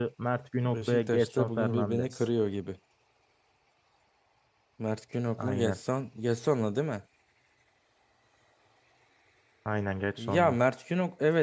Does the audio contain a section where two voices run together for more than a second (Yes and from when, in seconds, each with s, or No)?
Yes, from 0.6 s